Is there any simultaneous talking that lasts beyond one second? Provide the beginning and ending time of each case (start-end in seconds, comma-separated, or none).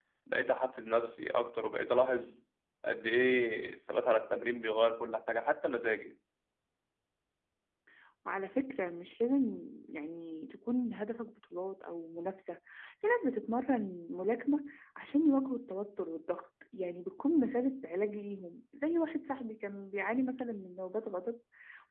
none